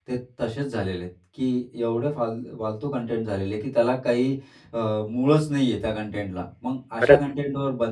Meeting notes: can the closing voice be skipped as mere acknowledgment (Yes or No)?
Yes